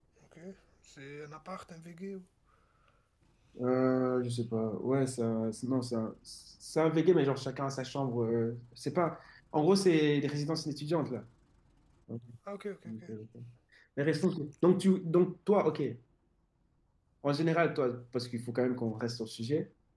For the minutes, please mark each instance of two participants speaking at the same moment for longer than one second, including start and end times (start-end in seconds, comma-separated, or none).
none